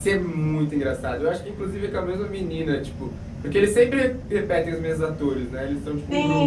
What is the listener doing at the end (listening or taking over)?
taking over